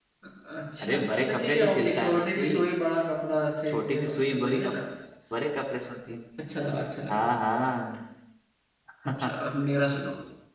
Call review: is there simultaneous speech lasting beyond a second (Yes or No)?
Yes